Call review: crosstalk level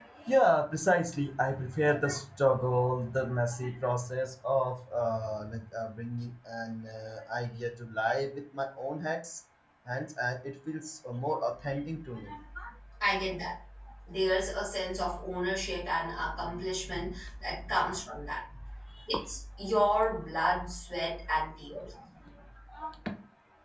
none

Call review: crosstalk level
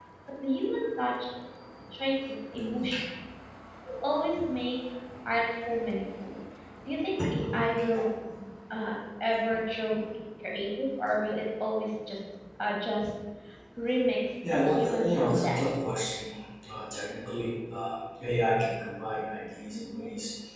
present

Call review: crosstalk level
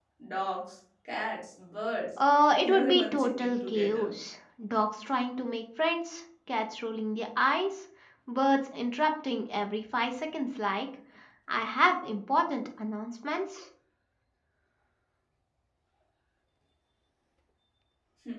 present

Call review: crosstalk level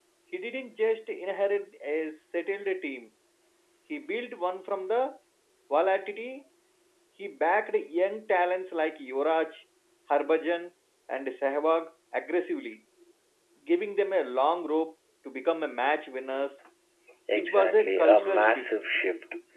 present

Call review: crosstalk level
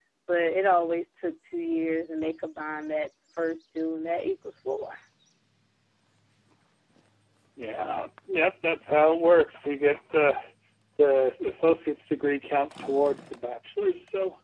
none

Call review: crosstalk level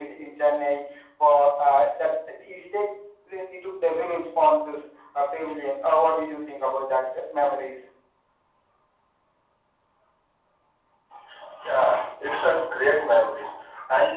none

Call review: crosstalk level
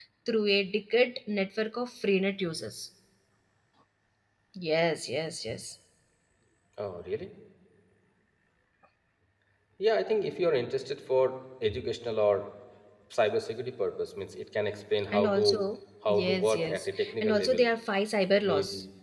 present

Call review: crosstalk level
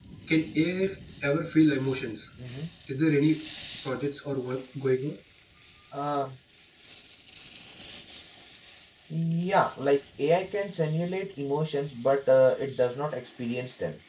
none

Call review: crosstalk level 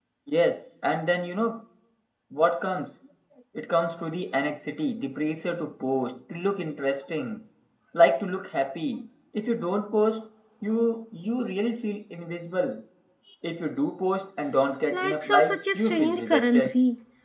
present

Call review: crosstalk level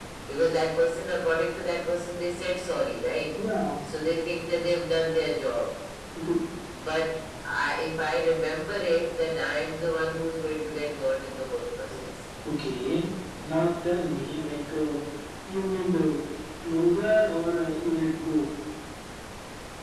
none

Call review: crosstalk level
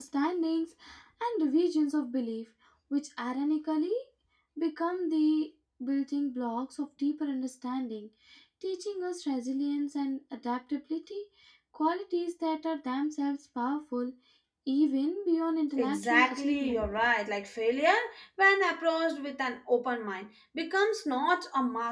present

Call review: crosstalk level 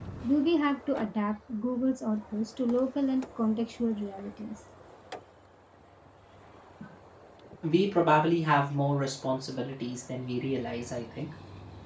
none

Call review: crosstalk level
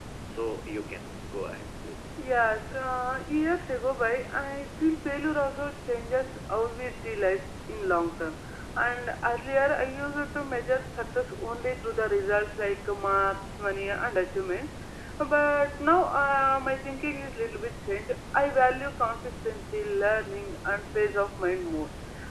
none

